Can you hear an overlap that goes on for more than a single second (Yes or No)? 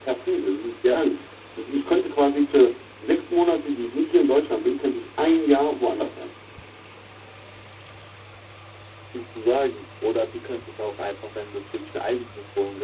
No